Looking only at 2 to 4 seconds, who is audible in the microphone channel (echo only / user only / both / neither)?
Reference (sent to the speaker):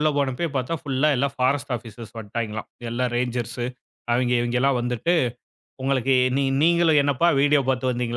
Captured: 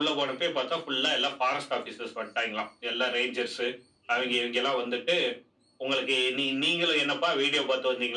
echo only